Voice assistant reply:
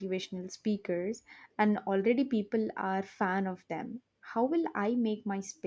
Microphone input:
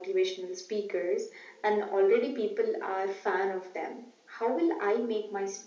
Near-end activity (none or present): none